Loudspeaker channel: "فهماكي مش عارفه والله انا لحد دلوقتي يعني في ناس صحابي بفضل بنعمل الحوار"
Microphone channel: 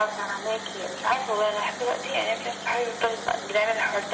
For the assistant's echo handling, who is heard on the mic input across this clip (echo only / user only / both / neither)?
echo only